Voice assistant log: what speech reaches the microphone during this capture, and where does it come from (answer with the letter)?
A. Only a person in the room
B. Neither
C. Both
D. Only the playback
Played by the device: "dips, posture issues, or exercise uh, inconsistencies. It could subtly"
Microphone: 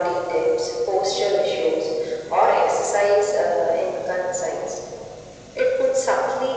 D